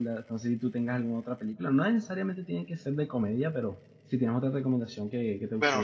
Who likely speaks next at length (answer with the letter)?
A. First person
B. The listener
B